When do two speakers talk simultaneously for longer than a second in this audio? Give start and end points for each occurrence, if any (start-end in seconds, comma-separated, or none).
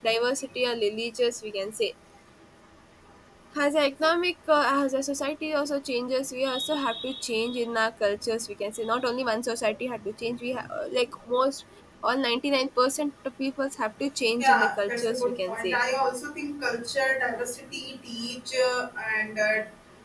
14.4-15.8